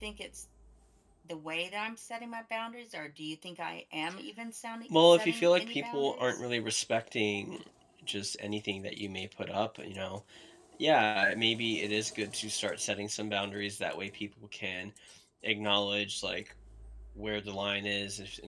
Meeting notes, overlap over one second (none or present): present